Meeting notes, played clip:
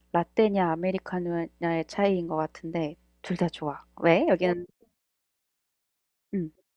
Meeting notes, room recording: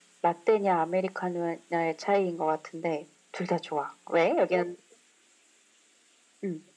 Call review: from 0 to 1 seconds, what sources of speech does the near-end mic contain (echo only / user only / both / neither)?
echo only